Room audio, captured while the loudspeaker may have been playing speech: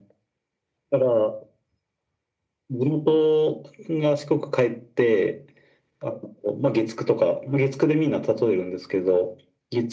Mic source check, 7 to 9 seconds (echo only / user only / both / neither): echo only